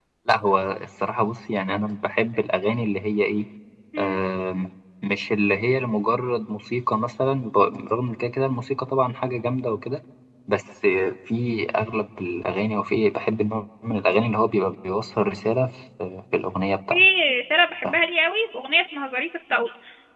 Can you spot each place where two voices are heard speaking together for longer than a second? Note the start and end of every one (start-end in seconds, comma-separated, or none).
none